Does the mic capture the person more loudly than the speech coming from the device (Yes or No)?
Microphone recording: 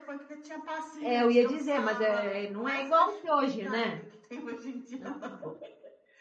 Yes